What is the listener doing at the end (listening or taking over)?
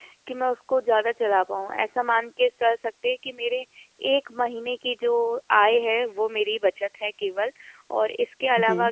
listening